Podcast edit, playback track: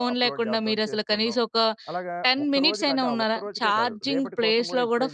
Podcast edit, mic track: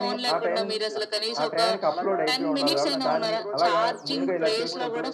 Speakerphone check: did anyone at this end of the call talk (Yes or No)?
Yes